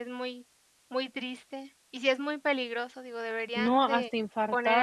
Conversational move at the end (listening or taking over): taking over